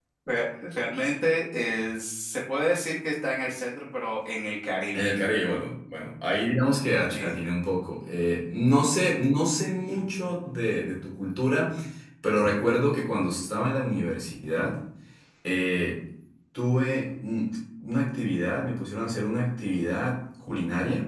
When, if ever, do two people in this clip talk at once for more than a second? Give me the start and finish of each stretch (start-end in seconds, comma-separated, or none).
none